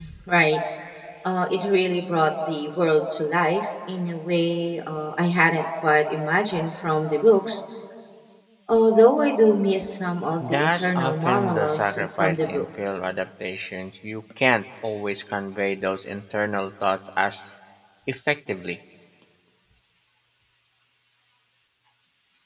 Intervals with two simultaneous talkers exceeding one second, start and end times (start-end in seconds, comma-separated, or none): 10.4-12.7